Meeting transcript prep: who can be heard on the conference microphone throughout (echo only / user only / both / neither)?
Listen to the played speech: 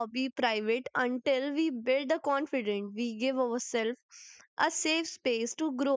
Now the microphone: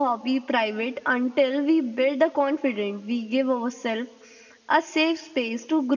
echo only